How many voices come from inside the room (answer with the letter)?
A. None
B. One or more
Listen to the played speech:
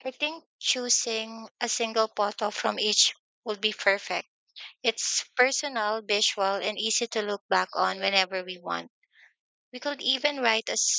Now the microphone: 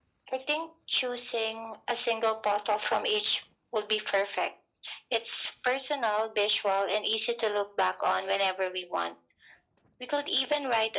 A